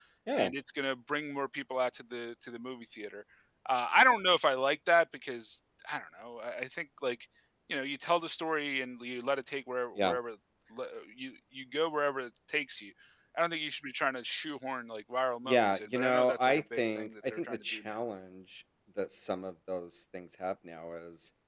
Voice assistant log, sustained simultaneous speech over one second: present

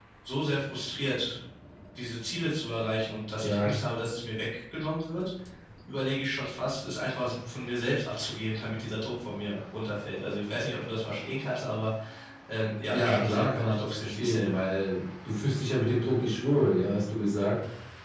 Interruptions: present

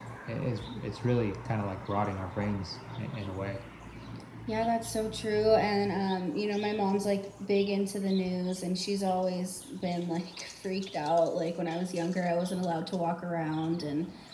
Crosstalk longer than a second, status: none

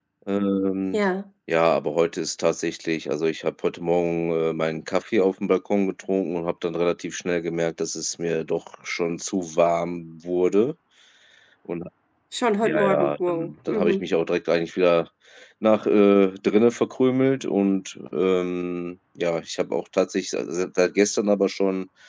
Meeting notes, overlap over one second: present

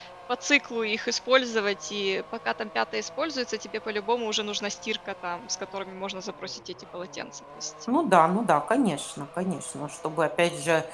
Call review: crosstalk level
none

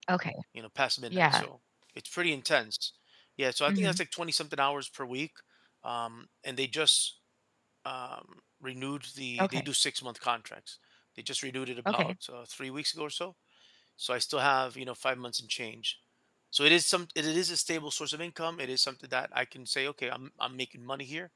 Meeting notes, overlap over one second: none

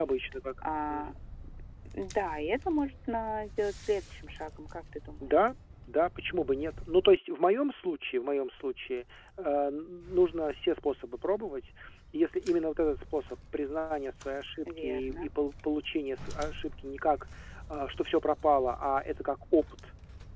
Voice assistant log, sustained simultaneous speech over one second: none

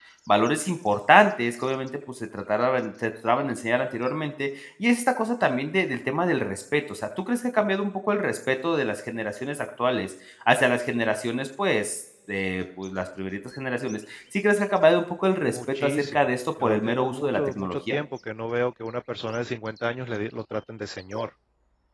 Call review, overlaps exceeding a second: present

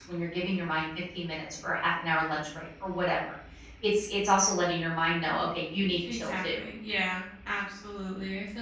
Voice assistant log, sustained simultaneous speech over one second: none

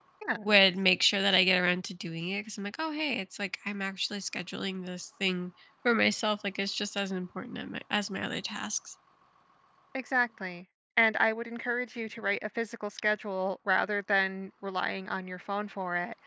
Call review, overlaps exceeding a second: none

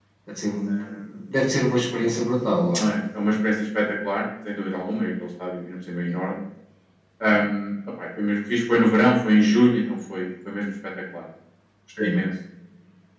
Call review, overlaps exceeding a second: none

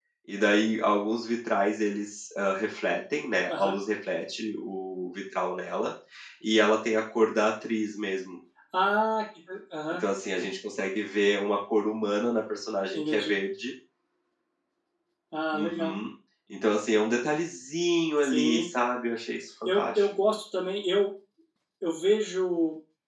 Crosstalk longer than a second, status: none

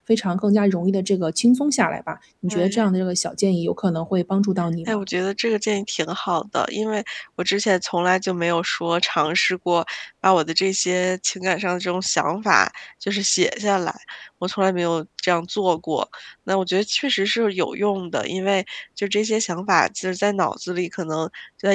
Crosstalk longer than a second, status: none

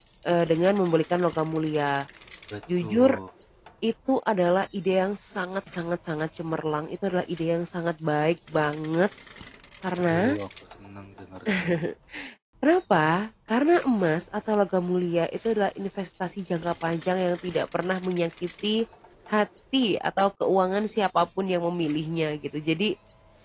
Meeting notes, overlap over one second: none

